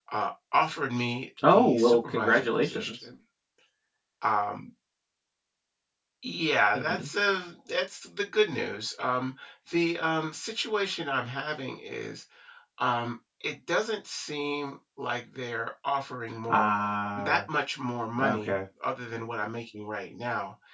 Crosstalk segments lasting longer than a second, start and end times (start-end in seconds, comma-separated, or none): 1.5-3.1